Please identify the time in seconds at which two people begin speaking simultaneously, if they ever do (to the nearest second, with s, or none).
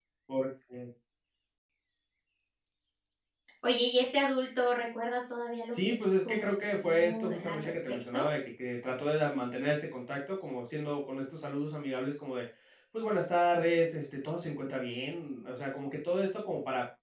6 s